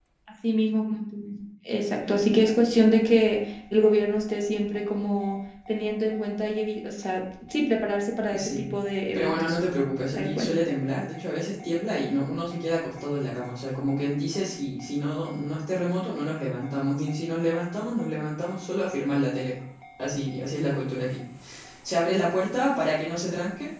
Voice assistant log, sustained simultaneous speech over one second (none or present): none